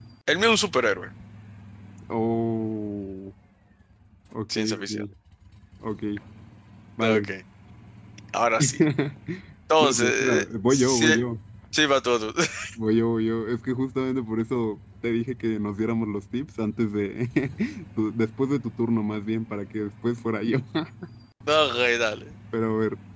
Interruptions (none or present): present